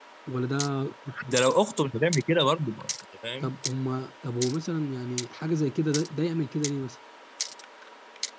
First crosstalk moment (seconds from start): none

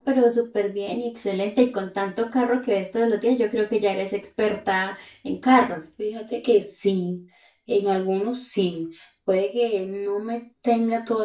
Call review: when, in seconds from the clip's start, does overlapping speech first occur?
none

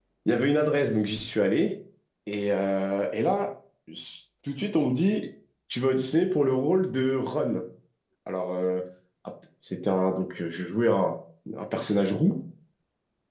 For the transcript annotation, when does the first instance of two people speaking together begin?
none

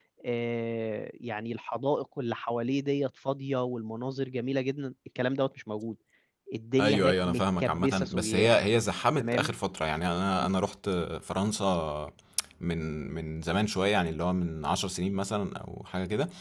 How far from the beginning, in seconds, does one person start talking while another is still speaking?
7 s

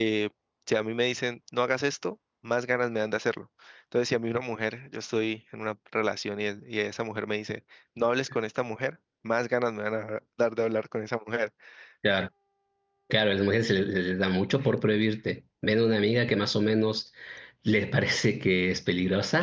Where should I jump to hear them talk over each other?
none

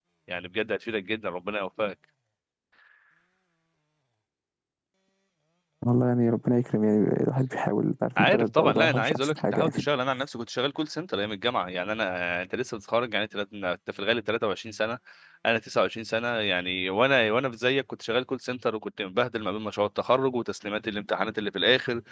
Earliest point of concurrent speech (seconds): 8 s

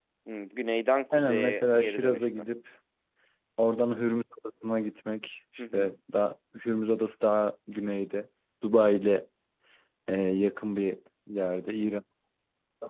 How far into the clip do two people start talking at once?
1 s

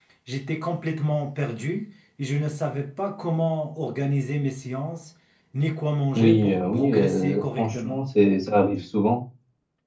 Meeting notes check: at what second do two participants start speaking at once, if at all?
6 s

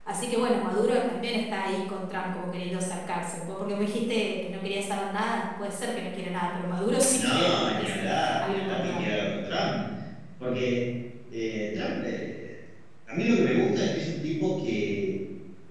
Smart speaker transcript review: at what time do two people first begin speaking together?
7 s

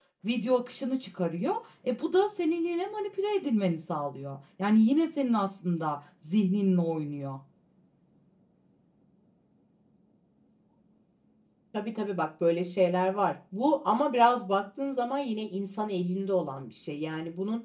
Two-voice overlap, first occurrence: none

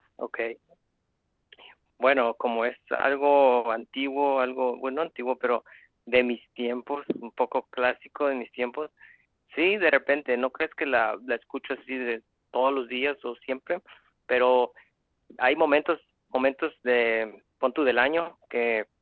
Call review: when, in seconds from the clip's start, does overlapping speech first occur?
none

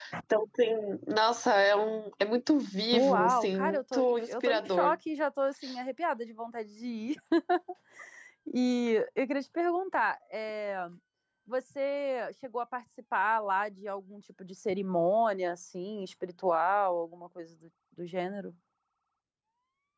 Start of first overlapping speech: 3 s

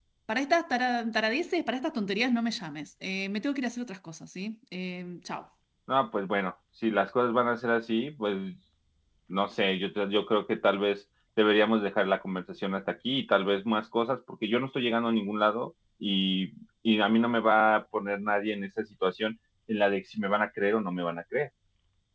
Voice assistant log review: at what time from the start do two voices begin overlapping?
none

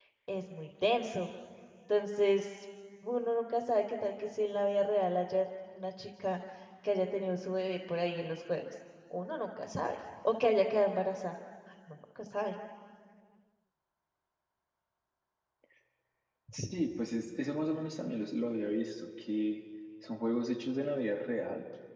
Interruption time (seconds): none

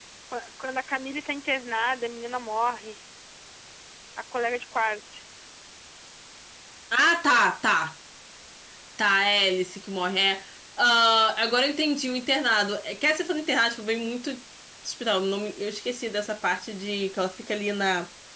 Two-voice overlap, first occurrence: none

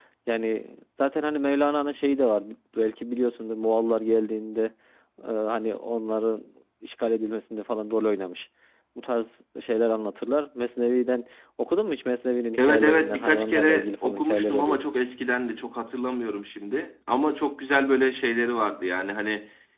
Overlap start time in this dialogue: 13 s

